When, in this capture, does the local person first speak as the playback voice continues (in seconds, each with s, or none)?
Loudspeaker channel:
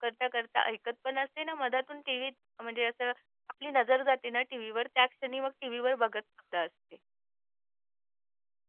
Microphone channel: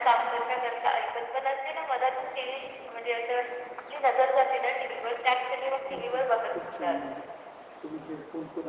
5.9 s